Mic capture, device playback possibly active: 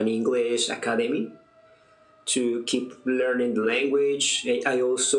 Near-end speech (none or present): none